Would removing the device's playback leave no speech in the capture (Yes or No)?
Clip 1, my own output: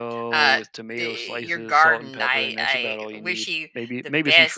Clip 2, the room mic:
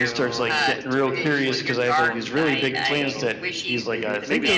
No